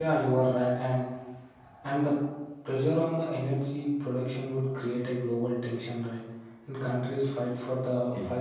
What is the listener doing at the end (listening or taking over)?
listening